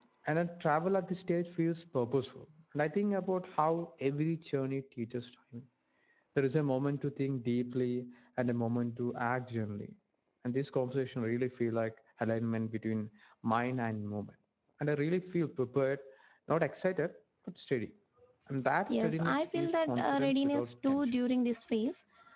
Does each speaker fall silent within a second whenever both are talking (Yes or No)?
No